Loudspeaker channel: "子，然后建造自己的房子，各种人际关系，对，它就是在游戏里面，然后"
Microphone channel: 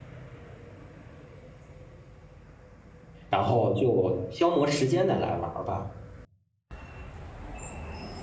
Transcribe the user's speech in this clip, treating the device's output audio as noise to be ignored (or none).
然后就消磨时间的来玩儿吧。